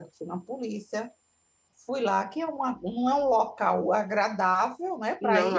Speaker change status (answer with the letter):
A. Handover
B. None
B